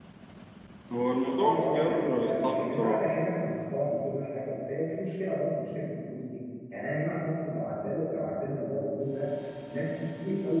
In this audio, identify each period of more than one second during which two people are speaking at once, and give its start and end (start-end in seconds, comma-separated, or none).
1.4-3.1